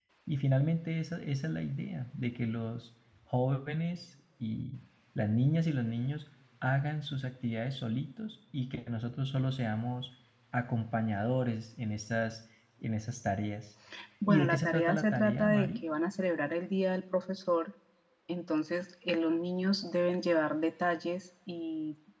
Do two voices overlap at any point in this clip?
Yes, from 14.3 s

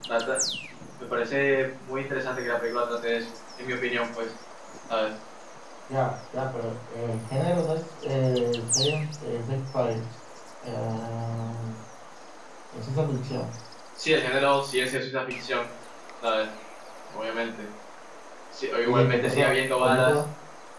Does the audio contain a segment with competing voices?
Yes, from 18.8 s

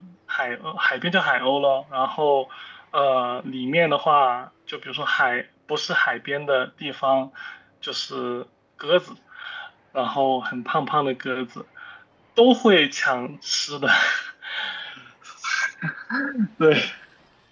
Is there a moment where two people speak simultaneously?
No

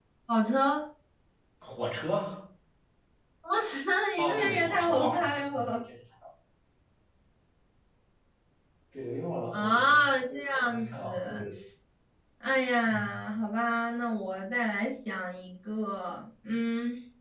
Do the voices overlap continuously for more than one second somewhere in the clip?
Yes, from 4.2 s

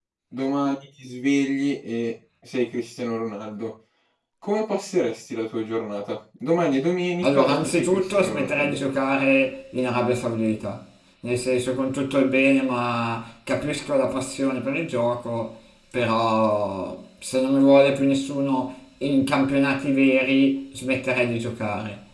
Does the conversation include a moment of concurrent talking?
Yes, from 7.2 s

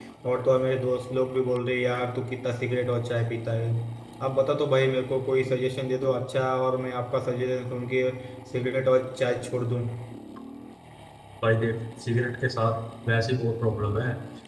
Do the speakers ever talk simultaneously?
No

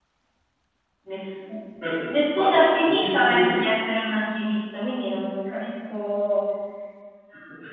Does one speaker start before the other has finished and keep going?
Yes, from 2.1 s

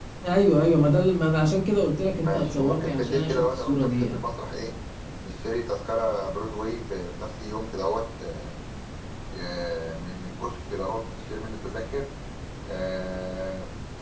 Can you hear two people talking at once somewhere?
Yes, from 2.2 s

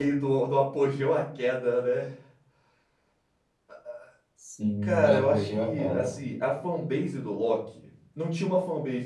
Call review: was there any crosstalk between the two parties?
Yes, from 4.8 s

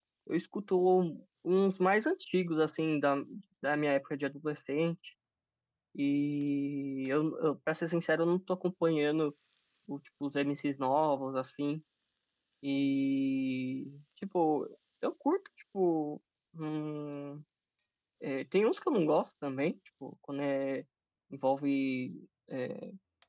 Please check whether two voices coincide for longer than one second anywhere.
No

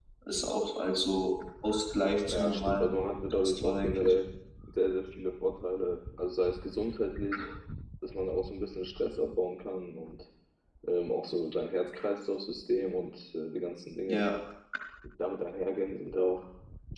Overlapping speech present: Yes, from 2.3 s

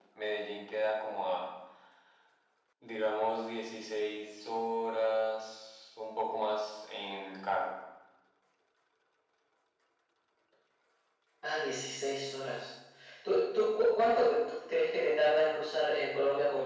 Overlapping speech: No

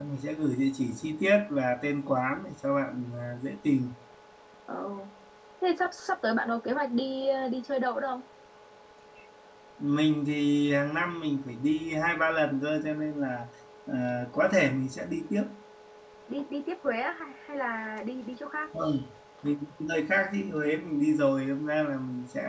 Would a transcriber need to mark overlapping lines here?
No

